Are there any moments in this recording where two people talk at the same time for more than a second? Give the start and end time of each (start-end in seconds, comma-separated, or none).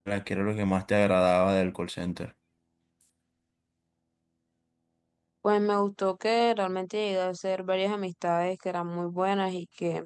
none